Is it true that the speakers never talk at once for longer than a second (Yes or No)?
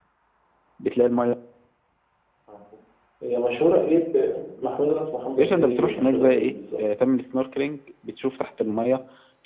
No